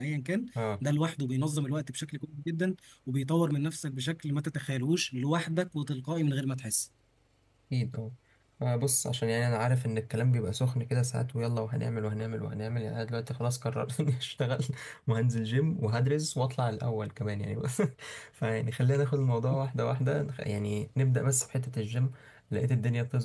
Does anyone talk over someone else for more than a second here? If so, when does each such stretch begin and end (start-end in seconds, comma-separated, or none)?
none